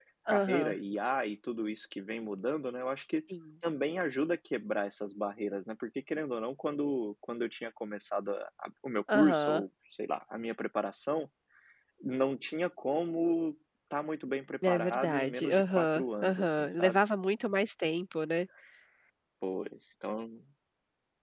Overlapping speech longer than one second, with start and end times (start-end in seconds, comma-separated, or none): 14.7-17.0